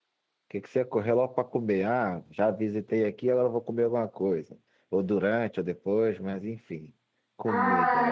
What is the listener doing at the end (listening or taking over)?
taking over